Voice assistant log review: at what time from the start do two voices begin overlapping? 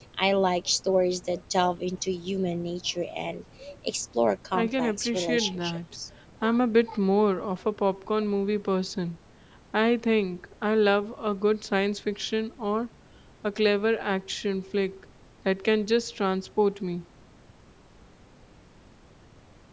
4.5 s

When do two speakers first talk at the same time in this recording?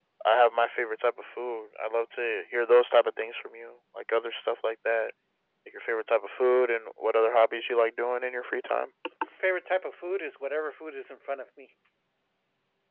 none

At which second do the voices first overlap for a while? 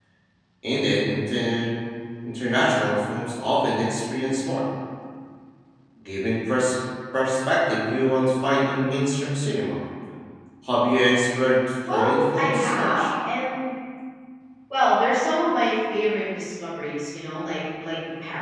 11.8 s

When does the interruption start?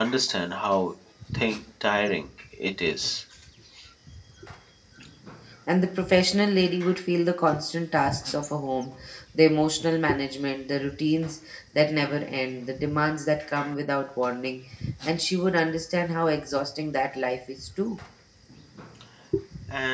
none

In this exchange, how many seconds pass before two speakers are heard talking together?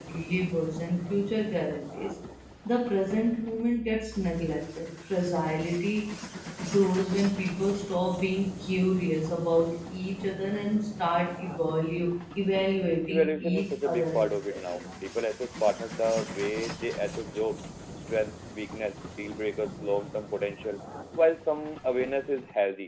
13.1 s

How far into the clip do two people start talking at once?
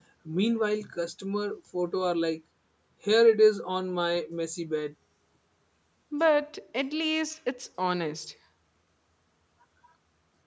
none

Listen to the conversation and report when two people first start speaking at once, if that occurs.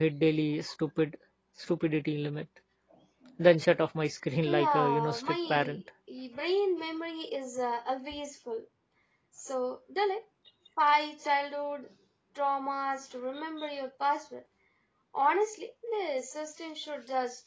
4.5 s

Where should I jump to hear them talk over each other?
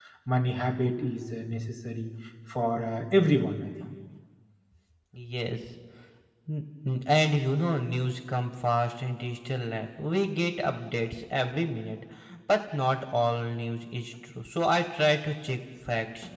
none

